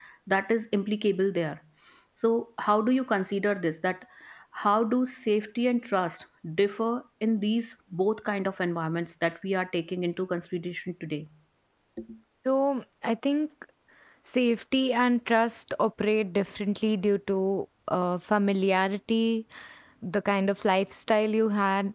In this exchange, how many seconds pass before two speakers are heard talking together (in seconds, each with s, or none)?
none